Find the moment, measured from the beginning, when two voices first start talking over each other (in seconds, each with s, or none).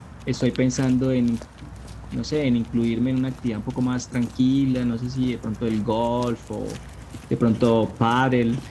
none